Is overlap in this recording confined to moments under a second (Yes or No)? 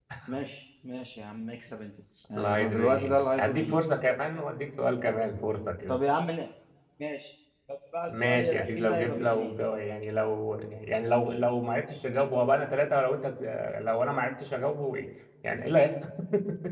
No